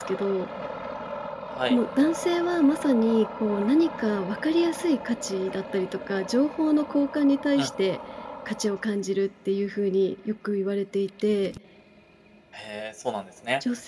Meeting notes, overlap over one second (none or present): none